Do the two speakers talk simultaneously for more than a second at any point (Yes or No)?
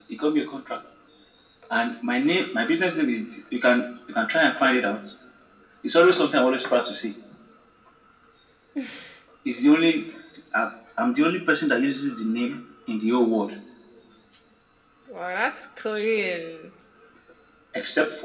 No